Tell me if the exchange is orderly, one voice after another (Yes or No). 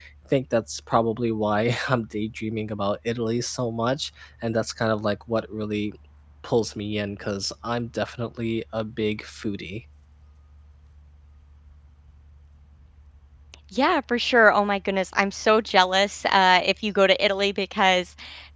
Yes